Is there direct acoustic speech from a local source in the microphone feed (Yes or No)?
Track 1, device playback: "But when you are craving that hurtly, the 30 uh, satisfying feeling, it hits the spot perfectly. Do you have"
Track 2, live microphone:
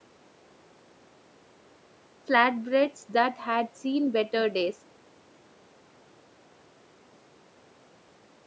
Yes